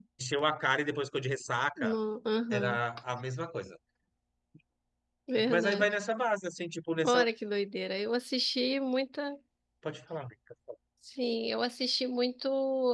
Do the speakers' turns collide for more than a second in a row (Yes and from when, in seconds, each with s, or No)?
No